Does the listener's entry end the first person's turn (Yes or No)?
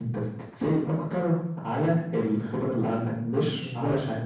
Yes